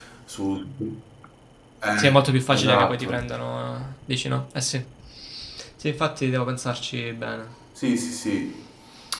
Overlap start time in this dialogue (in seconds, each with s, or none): 2.0 s